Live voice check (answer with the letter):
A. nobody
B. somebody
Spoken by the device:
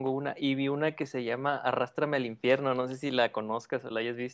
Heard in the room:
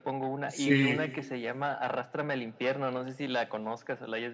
B